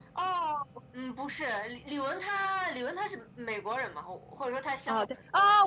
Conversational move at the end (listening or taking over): taking over